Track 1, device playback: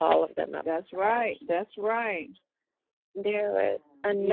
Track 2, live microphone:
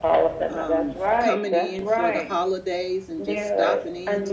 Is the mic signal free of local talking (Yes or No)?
No